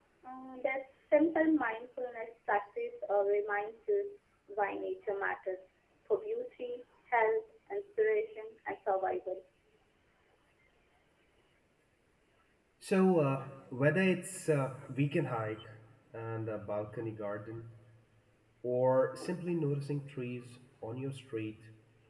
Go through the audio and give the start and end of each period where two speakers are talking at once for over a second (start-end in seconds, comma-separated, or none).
none